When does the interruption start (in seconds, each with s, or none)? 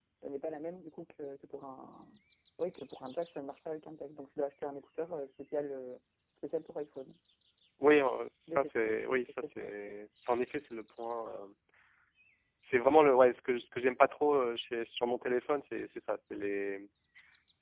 8.5 s